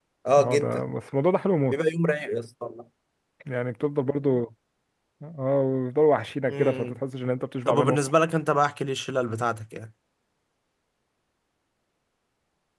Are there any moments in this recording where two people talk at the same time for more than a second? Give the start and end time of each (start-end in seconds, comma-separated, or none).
none